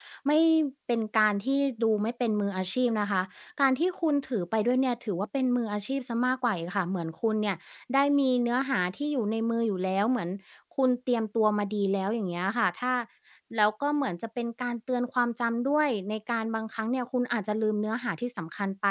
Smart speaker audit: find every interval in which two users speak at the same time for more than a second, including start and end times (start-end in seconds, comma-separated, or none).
none